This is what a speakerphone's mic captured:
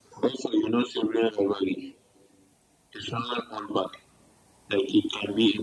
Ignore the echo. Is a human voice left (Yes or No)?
No